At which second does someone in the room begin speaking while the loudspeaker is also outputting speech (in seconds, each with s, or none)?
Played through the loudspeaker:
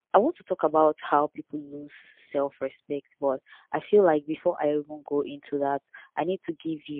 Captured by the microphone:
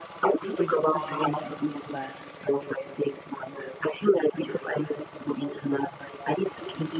0.4 s